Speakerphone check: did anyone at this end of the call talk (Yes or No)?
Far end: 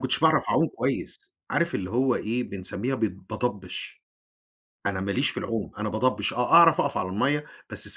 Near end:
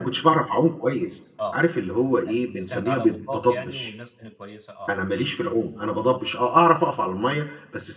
Yes